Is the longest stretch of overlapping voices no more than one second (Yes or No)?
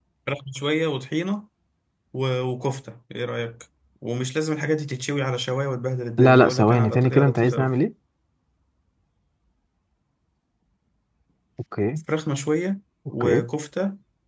No